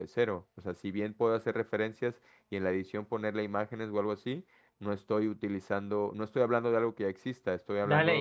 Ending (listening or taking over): taking over